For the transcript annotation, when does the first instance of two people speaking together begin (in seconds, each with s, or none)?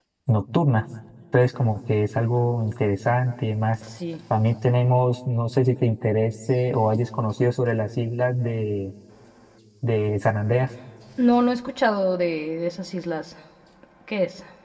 none